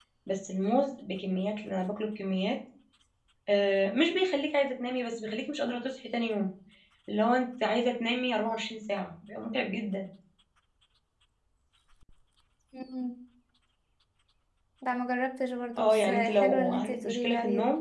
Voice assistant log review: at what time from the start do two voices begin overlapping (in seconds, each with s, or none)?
15.8 s